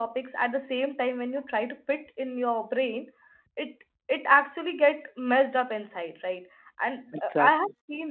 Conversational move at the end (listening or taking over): listening